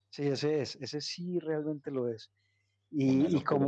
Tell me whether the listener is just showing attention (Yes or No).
No